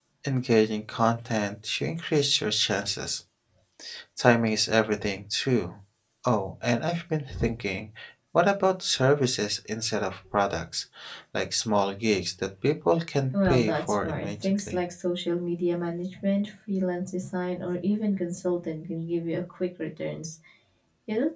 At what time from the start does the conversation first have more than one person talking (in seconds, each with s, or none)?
13.3 s